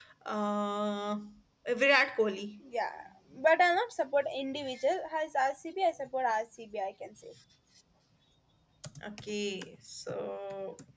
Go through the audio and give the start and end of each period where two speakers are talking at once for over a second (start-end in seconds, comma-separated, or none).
none